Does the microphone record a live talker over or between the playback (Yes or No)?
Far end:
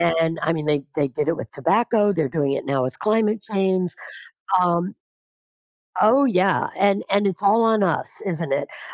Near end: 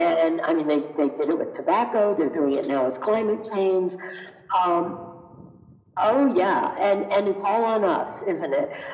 No